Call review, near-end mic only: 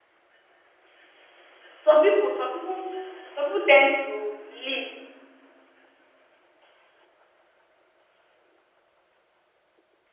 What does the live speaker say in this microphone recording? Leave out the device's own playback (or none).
some pipu some pipu some pipu ten d to leave